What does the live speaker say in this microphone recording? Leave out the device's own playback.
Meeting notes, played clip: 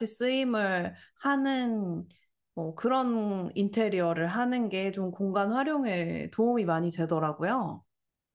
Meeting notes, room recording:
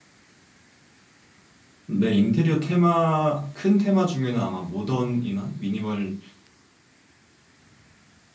네, 인테리어 테마, 큰 테마 중에는 아마 모던이나 미니멀리즘

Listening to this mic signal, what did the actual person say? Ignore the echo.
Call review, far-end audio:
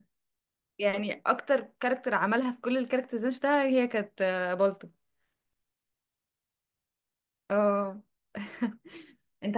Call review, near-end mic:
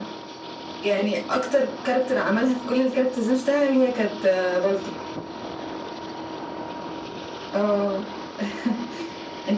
none

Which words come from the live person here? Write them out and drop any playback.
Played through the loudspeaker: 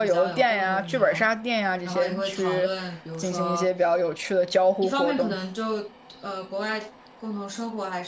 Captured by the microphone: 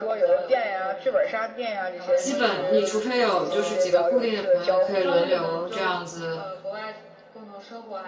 基本你除非有就是几个固定的朋友可以轮流这样子

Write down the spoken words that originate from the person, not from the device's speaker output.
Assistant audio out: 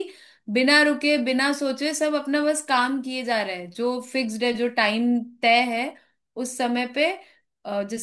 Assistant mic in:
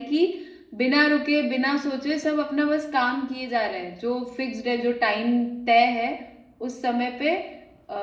none

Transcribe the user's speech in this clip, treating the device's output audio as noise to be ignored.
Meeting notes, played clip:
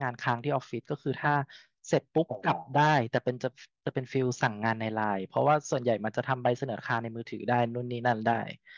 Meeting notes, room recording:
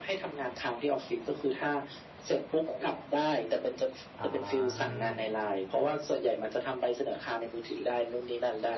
อ่า

